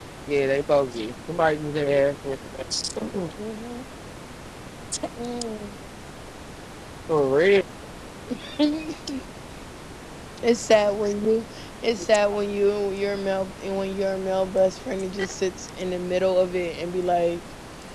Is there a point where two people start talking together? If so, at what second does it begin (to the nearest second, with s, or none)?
none